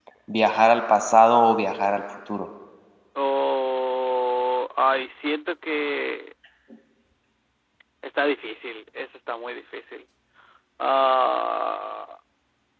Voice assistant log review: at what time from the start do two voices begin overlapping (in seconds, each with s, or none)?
none